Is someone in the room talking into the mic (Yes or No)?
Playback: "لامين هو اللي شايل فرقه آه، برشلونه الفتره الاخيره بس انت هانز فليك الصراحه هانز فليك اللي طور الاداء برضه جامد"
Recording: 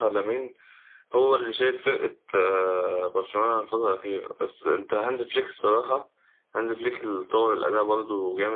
No